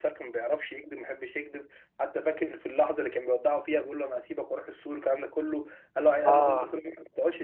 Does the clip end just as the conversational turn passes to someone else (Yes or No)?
No